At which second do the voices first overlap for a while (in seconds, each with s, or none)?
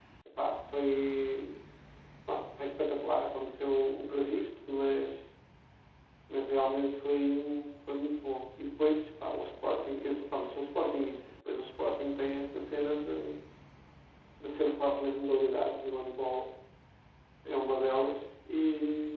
none